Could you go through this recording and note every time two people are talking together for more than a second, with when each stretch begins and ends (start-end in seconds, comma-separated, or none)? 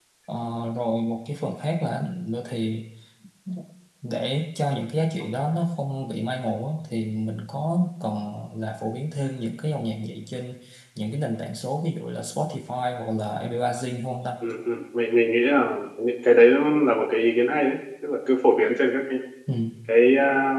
none